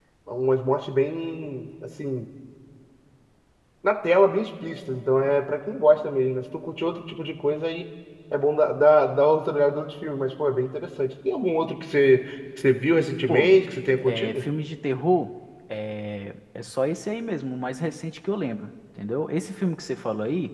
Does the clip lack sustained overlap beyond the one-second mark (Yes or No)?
Yes